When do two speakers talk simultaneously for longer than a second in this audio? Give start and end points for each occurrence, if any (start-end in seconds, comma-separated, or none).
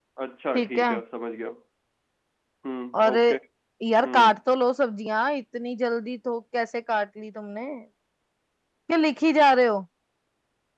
none